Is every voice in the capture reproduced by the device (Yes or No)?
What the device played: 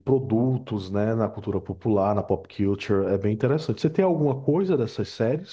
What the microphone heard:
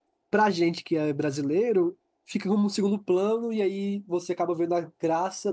No